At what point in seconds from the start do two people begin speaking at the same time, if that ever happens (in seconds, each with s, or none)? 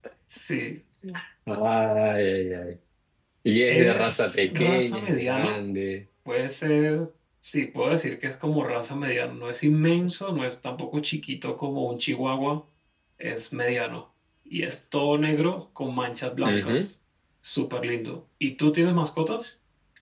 3.7 s